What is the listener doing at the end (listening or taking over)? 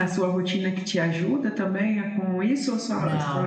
taking over